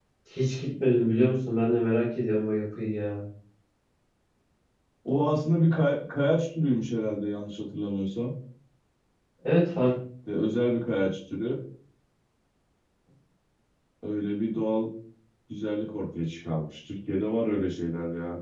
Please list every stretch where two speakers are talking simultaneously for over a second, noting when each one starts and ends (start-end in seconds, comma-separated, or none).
none